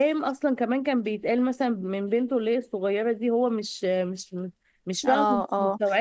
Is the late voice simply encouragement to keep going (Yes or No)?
No